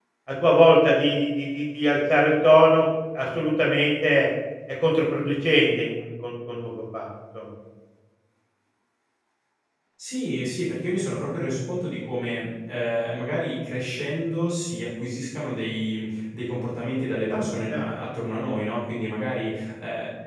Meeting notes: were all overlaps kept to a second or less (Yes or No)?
Yes